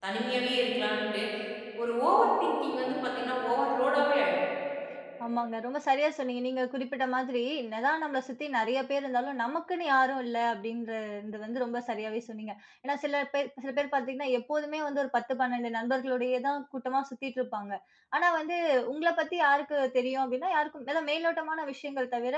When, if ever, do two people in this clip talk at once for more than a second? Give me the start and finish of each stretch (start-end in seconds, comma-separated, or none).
none